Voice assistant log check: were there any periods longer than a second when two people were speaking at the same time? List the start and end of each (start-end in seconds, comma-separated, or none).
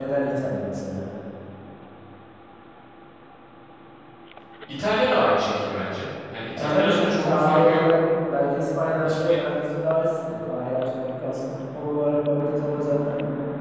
6.6-7.8